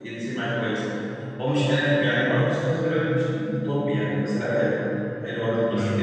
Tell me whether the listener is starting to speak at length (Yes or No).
Yes